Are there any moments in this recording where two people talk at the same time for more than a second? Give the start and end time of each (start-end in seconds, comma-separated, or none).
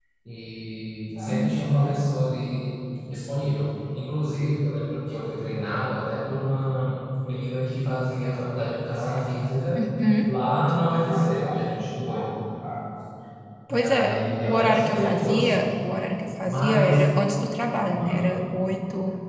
13.7-15.5